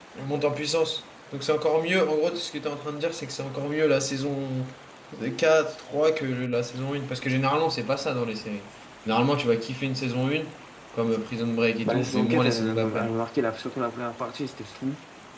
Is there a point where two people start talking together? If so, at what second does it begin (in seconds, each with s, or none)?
11.8 s